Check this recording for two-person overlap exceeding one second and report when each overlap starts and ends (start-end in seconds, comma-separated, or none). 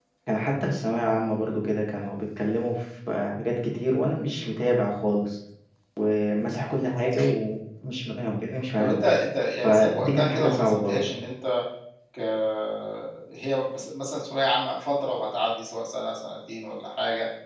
9.6-11.0